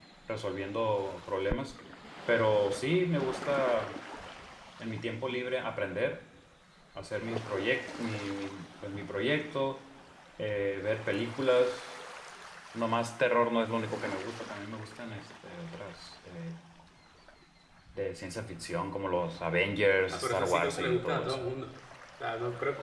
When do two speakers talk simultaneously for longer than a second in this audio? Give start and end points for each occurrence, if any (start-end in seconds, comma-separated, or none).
20.1-21.4